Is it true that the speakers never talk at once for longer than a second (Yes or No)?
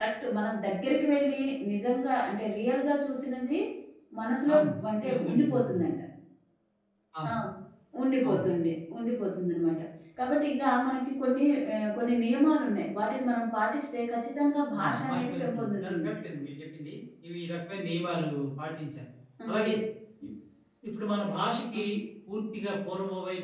No